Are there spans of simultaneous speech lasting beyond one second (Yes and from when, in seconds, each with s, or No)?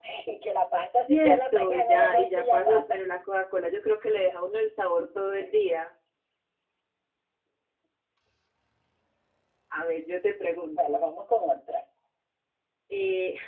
Yes, from 1.1 s